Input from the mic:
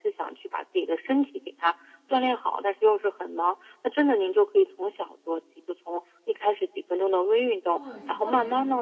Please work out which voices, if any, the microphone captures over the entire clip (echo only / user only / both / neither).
both